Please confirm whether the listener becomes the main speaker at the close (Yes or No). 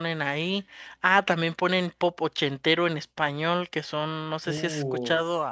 No